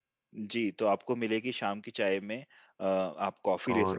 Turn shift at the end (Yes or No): Yes